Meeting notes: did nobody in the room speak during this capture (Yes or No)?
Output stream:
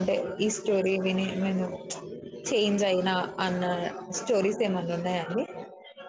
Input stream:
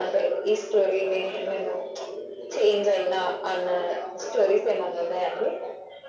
Yes